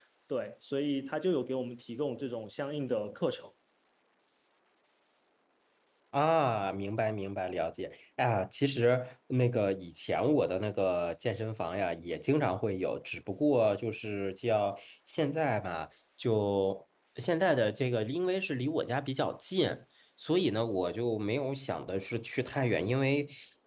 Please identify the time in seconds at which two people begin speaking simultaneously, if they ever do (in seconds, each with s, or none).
none